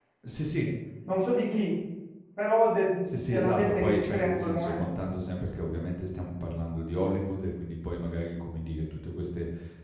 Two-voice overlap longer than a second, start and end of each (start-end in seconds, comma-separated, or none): 3.1-4.9